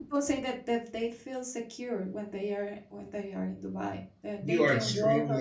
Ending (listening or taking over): taking over